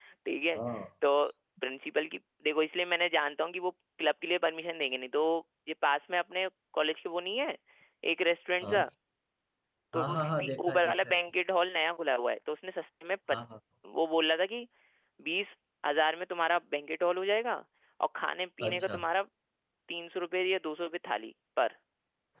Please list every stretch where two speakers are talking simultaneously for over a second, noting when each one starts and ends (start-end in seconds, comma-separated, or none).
9.9-11.2